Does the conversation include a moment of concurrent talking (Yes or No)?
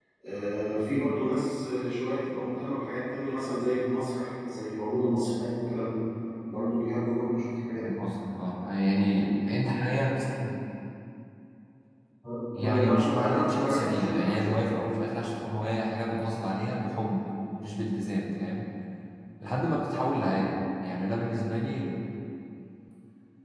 Yes